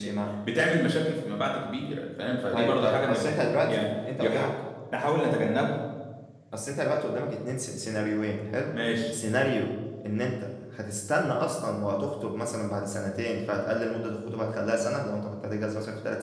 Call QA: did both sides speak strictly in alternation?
No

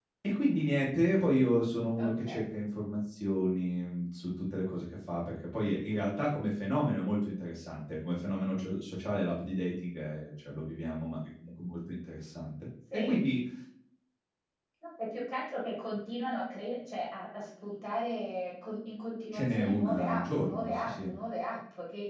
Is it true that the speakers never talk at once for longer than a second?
No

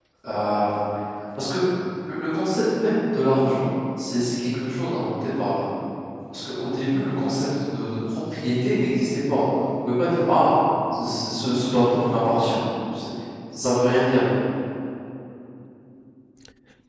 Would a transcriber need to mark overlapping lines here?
No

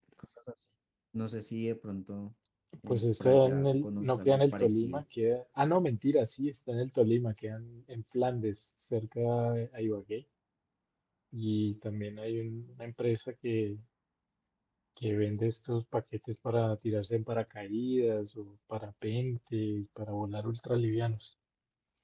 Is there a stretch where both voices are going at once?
Yes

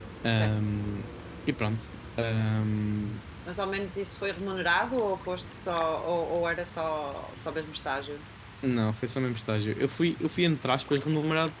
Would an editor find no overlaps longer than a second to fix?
Yes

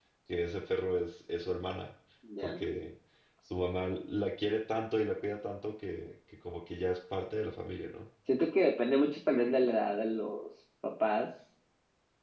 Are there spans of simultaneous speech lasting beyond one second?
No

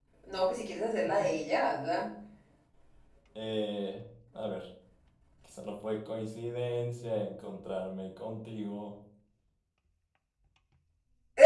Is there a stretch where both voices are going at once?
No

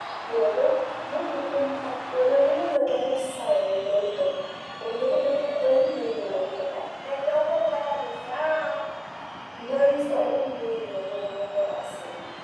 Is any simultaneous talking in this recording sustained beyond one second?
No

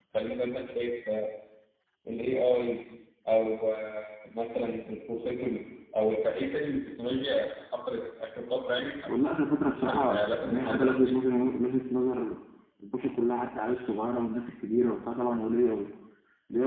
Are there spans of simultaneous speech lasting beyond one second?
Yes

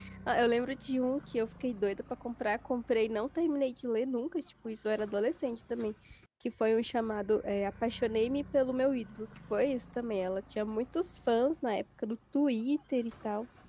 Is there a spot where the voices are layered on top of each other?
No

